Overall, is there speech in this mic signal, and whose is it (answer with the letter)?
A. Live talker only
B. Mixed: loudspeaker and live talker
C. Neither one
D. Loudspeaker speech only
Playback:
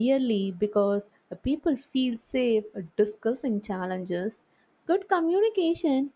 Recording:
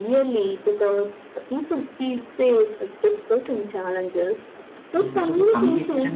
B